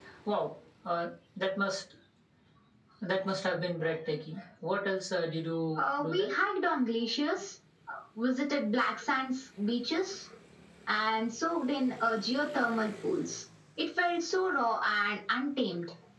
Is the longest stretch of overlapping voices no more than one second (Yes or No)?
Yes